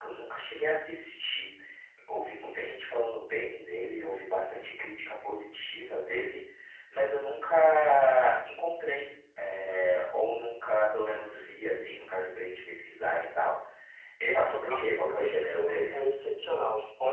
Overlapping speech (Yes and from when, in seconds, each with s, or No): Yes, from 14.7 s